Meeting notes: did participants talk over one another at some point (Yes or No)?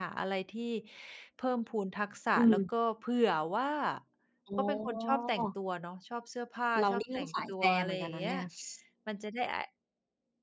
Yes